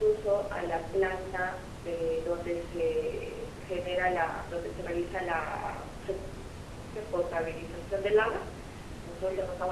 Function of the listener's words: listening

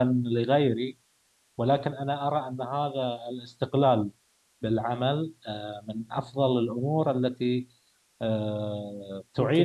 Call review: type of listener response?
listening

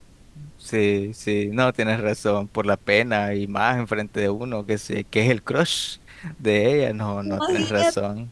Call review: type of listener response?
taking over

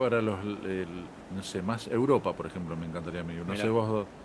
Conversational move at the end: listening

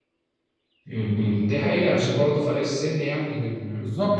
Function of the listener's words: taking over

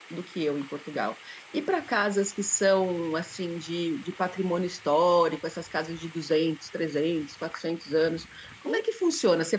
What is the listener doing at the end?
listening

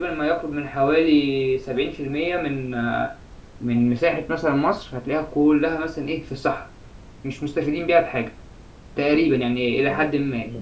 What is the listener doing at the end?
taking over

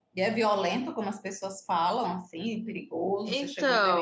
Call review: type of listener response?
taking over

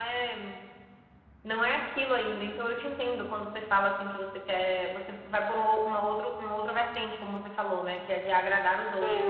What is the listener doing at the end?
taking over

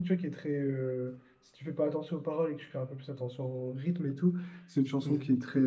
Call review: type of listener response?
listening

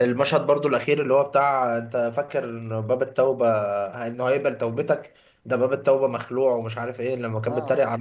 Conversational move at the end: listening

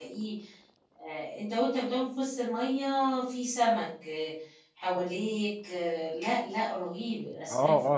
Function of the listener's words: taking over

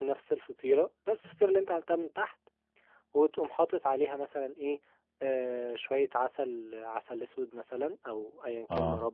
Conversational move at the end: listening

